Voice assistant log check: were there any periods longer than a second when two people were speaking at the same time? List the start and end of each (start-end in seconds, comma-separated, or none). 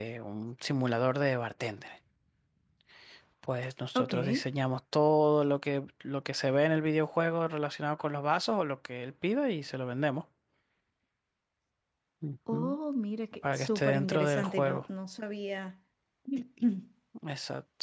13.4-14.8